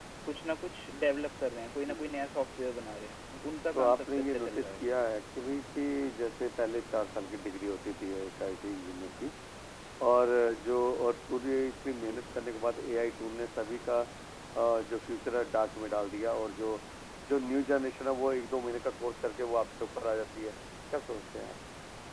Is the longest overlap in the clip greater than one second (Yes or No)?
Yes